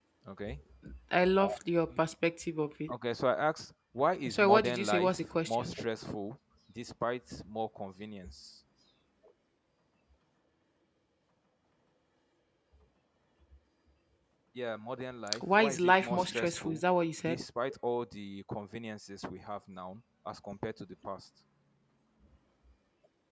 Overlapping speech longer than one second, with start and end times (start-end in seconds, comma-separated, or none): 4.3-5.7, 15.4-16.8